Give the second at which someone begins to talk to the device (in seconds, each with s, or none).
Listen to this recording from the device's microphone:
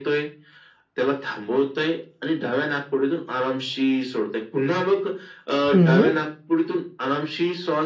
5.7 s